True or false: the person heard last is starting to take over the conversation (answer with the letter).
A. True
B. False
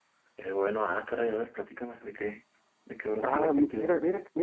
A